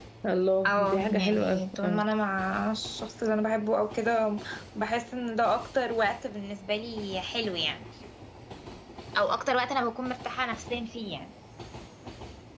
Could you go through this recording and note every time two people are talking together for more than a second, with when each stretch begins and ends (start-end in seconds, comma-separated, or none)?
0.6-2.0